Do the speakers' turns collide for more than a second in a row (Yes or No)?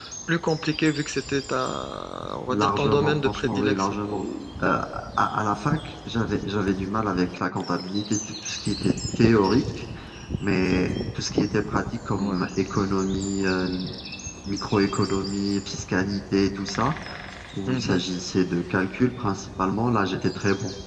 Yes